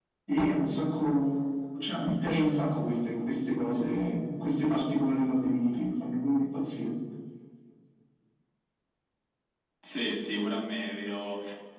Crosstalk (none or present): none